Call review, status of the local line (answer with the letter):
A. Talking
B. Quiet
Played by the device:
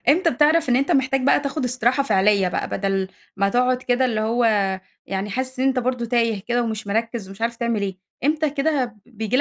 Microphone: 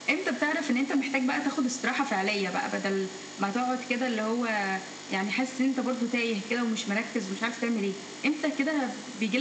B